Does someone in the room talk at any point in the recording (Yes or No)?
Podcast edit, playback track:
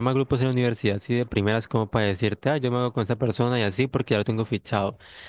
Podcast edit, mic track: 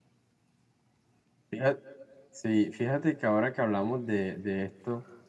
Yes